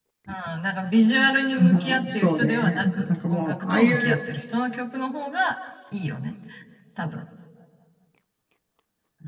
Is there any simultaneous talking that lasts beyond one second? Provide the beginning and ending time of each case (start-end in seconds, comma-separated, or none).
1.6-4.2